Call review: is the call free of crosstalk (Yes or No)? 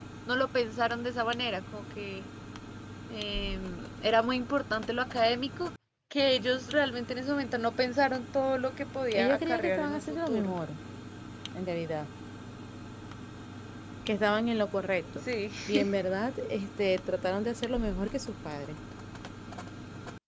No